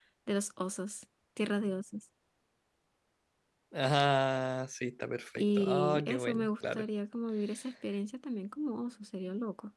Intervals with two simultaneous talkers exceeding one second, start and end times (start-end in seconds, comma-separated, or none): 5.4-6.8